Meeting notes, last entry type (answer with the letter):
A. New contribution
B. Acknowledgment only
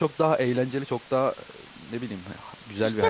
A